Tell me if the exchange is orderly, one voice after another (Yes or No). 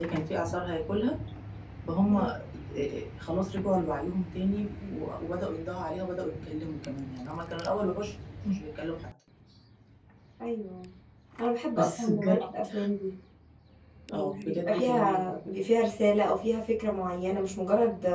No